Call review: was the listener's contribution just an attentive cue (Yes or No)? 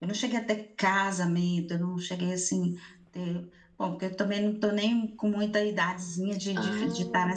Yes